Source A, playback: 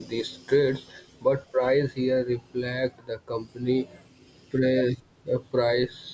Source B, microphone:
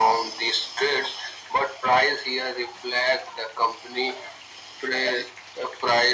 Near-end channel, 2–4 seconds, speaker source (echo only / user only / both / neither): echo only